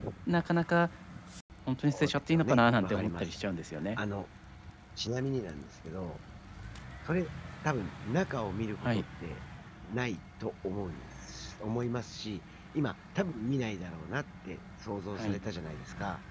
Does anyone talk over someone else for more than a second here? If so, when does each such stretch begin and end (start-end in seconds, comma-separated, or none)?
1.9-3.3